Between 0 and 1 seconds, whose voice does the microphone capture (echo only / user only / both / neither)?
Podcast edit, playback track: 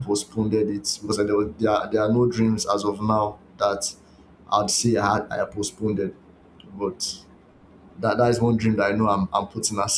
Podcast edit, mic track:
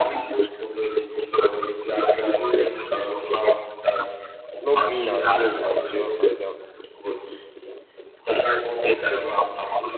echo only